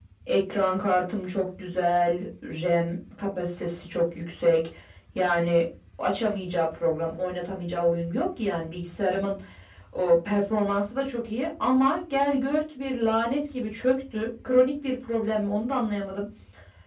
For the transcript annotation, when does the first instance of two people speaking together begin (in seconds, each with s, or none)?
none